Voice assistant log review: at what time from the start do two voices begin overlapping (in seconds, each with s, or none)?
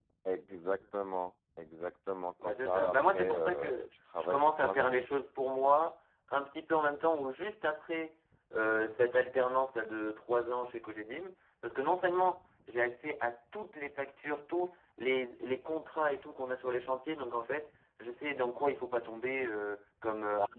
2.4 s